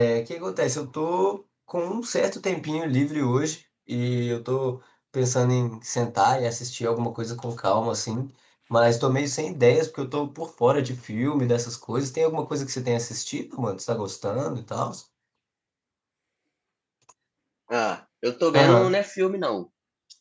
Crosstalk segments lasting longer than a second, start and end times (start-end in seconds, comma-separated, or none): none